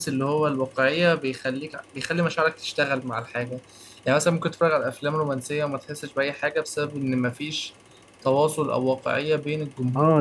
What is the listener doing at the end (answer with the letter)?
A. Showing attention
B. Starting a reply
B